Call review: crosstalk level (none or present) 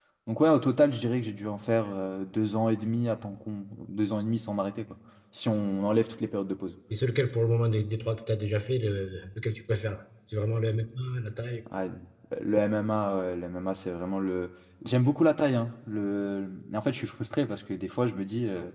none